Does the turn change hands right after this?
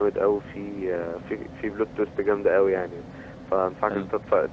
No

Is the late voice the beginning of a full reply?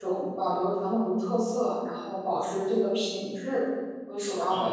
Yes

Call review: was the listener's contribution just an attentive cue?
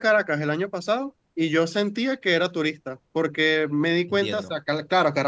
Yes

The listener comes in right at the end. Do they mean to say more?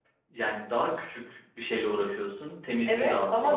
Yes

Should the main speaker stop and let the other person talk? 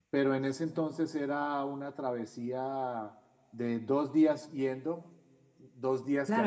Yes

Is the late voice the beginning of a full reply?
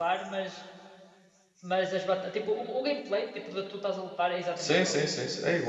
Yes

